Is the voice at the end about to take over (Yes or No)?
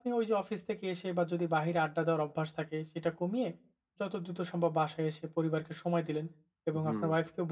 No